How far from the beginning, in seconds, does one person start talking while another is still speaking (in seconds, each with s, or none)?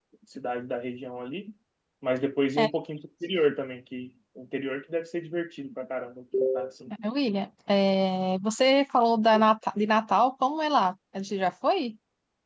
none